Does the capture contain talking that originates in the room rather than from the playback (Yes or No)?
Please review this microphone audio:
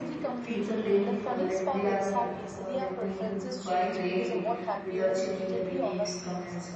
Yes